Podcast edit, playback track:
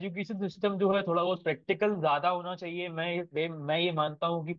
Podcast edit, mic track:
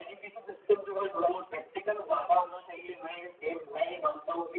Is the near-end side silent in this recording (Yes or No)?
Yes